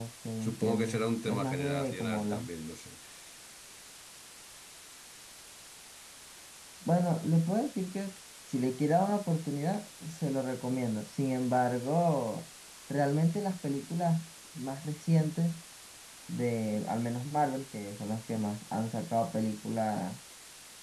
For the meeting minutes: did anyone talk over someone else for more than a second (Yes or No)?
Yes